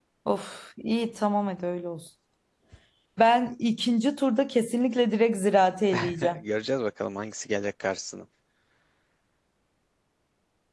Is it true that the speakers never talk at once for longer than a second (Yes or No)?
Yes